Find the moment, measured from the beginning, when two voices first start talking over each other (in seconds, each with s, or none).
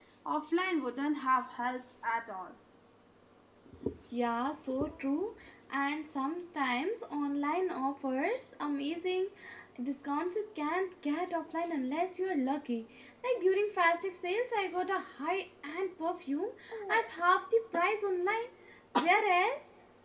none